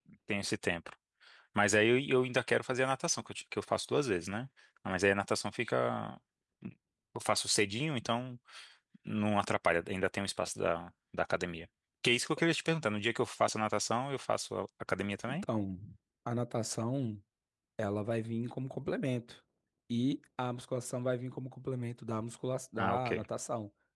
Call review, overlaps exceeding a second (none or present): none